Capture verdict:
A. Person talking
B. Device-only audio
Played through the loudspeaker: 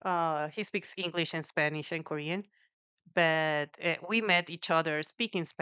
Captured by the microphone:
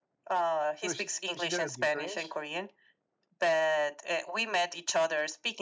A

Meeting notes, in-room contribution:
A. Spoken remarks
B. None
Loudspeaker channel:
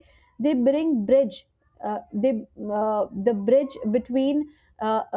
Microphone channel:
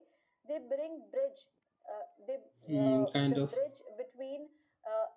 A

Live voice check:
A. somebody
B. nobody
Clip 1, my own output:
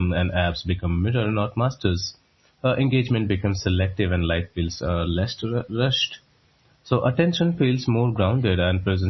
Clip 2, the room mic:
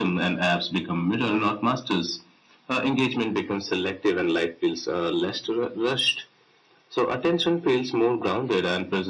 B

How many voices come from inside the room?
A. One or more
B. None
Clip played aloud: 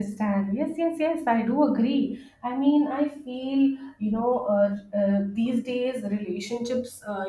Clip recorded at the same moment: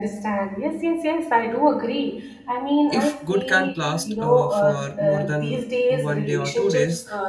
A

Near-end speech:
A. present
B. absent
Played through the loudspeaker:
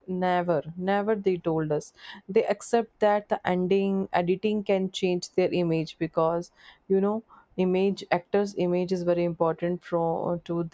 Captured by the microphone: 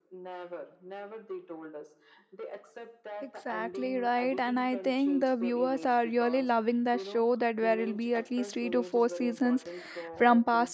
A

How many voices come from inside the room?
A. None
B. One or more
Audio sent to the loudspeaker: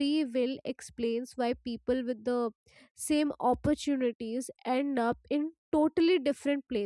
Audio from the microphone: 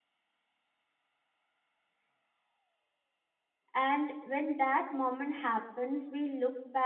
B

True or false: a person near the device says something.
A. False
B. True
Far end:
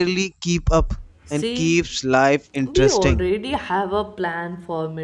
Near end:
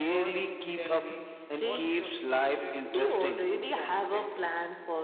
B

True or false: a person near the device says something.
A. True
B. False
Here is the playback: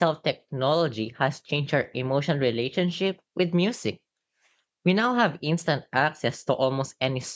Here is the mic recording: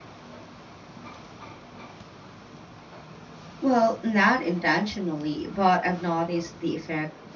A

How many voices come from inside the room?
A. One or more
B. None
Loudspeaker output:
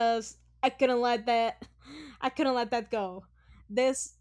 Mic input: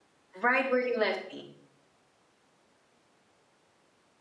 A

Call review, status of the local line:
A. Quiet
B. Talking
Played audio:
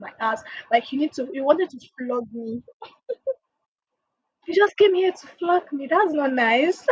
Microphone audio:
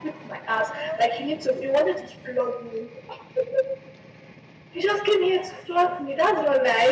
B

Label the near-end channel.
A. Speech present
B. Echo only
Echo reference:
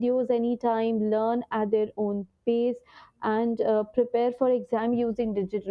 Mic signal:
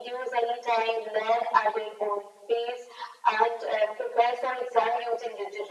B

